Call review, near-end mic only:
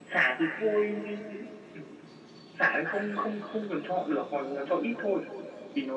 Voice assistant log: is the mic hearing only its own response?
Yes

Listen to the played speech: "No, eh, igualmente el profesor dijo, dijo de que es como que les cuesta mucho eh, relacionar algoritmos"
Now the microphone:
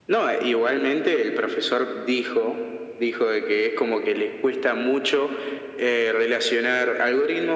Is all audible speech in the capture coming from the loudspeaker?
Yes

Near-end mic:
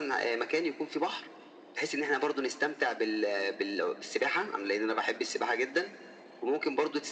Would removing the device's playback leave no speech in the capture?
Yes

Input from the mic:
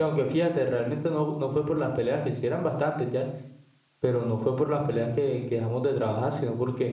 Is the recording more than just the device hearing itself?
Yes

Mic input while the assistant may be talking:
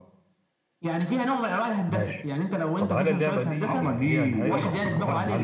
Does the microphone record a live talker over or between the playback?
Yes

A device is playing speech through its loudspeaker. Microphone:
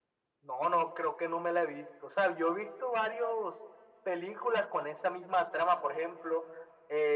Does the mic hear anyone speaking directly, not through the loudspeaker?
No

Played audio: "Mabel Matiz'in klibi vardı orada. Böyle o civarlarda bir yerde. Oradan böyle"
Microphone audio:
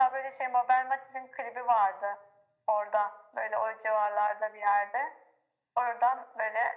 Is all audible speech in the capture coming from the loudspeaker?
Yes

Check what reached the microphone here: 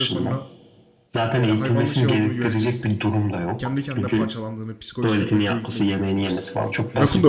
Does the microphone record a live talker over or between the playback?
Yes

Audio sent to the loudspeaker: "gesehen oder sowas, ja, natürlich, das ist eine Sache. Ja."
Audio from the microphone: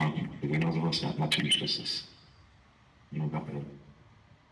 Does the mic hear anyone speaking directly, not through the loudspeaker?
No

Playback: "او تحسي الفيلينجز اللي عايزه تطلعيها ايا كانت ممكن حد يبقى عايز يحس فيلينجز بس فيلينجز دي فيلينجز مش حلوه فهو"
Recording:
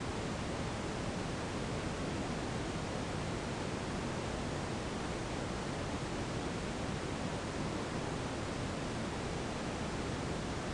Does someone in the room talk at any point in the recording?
No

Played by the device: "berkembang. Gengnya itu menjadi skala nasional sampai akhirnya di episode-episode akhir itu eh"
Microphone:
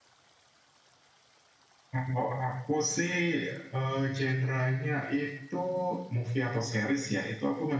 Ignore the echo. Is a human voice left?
Yes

